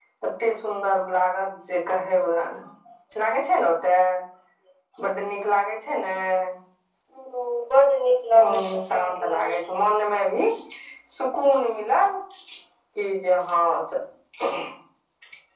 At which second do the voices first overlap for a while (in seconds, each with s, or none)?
8.3 s